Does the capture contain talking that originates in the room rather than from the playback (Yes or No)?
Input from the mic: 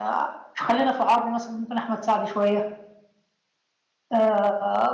Yes